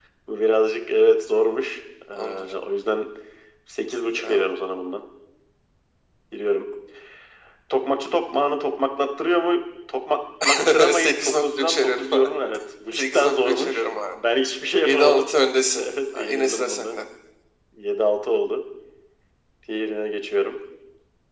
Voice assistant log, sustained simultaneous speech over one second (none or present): present